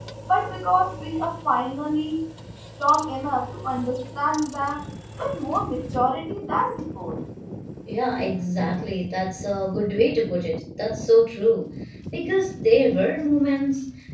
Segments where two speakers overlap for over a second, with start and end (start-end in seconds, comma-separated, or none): none